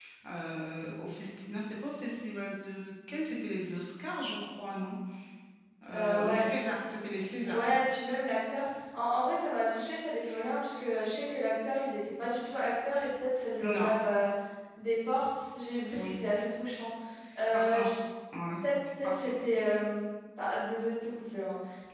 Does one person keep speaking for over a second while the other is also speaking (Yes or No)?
No